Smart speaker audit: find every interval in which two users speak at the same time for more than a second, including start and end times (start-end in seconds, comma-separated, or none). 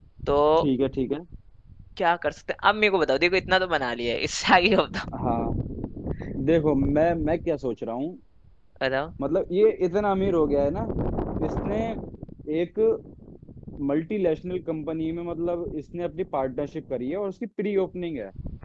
none